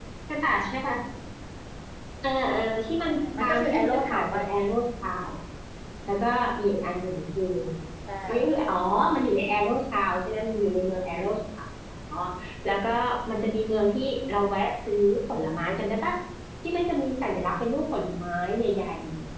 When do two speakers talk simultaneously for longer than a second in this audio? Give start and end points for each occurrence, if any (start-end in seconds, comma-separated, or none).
3.0-4.4